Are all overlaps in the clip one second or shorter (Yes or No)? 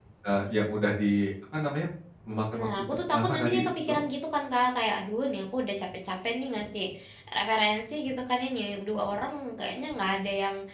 No